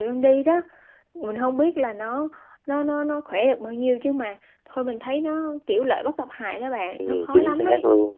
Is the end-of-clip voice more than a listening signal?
Yes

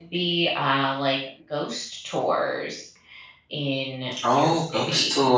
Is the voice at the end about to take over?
Yes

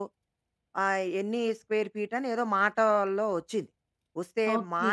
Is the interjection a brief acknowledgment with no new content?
Yes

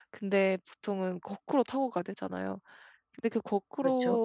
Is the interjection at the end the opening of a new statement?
No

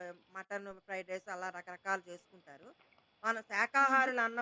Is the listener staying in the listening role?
Yes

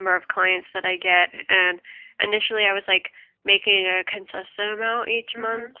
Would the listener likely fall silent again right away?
Yes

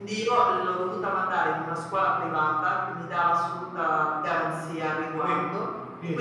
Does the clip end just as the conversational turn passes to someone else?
No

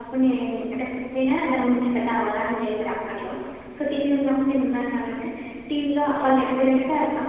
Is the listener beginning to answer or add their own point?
No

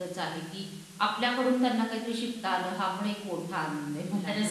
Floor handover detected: Yes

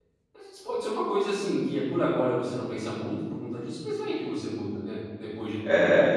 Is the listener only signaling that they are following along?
No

